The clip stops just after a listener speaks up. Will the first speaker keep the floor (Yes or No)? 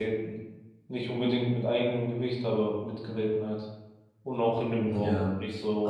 No